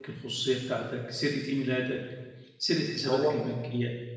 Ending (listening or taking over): listening